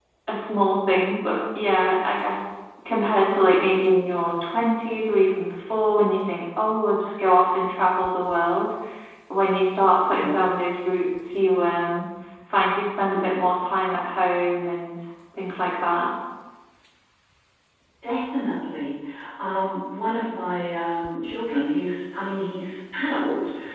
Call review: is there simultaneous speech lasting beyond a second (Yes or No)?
No